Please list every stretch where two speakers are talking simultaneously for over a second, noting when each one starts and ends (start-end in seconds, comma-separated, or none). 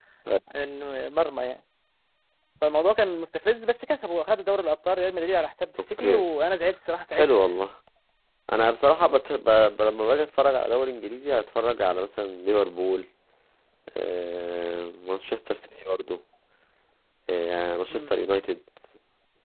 none